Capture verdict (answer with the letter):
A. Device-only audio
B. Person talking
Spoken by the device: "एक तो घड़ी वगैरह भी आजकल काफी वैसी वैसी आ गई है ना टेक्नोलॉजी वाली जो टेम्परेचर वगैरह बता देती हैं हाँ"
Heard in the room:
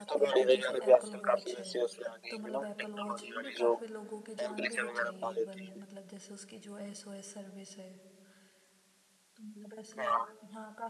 B